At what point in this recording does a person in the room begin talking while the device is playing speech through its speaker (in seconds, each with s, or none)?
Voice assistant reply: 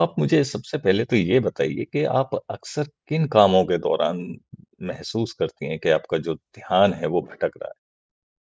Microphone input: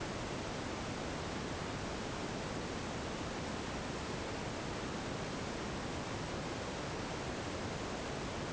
none